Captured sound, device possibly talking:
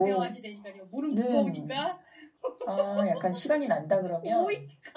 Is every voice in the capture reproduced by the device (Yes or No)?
Yes